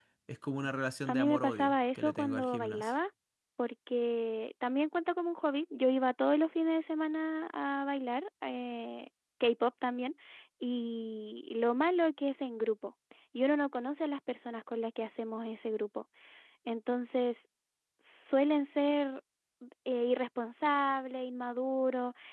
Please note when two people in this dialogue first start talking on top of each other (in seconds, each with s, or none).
1.1 s